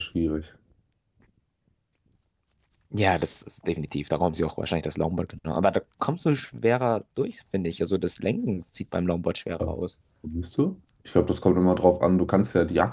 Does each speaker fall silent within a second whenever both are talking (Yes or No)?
Yes